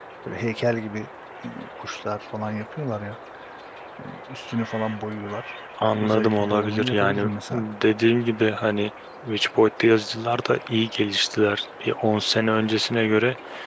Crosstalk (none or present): present